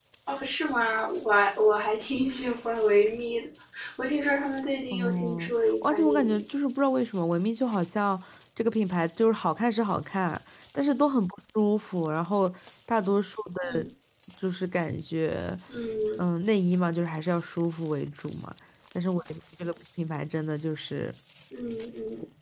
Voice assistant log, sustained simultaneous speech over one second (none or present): present